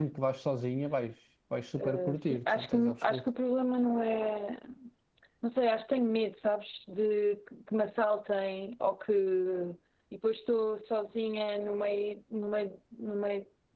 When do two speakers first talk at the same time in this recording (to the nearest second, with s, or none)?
2 s